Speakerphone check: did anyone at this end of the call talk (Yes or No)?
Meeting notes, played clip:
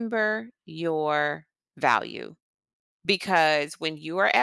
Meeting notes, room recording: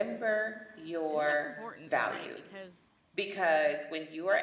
Yes